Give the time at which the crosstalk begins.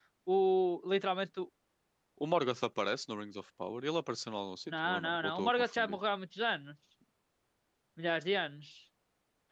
4.7 s

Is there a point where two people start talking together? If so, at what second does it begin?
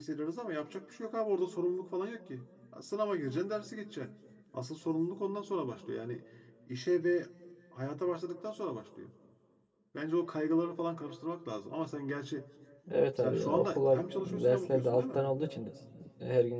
13.2 s

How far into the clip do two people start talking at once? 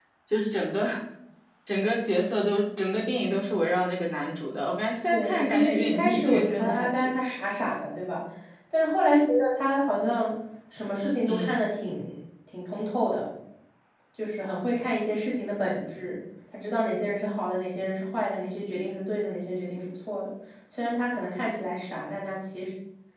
5.1 s

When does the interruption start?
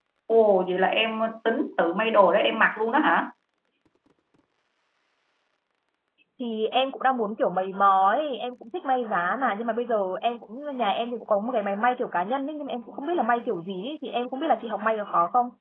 none

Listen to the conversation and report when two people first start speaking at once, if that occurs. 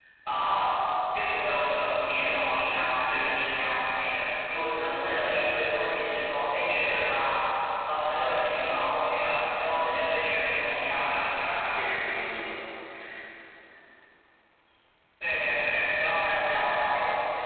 10.4 s

